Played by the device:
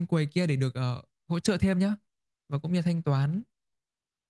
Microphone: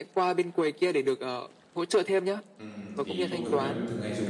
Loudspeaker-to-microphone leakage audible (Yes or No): Yes